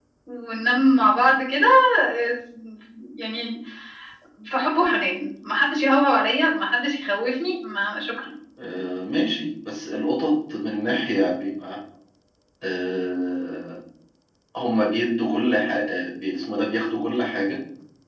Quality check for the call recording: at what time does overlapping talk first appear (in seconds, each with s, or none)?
none